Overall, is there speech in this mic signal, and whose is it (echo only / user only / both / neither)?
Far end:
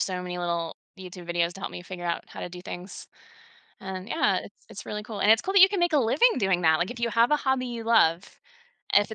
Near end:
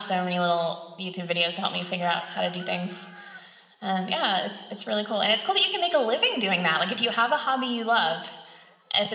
echo only